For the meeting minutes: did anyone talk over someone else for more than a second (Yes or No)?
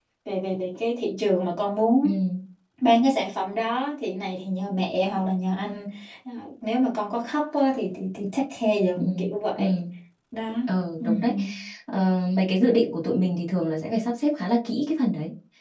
No